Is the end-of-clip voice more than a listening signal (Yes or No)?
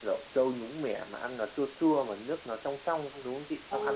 Yes